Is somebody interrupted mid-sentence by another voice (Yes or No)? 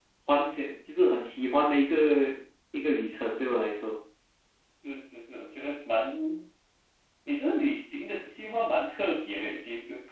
No